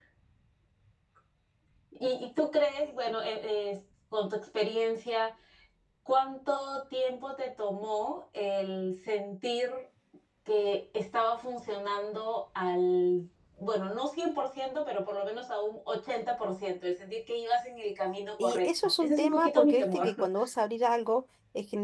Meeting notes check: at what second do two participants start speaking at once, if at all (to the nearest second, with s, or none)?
18 s